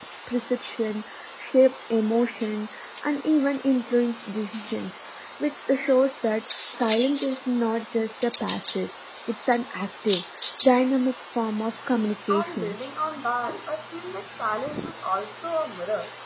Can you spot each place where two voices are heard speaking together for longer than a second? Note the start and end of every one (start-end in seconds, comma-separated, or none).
none